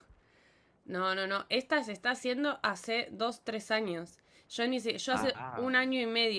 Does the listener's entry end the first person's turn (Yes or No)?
No